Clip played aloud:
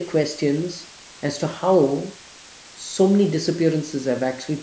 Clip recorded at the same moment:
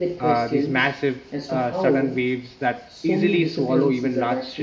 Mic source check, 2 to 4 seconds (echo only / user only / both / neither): both